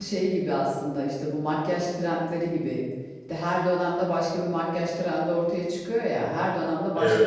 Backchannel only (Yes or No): Yes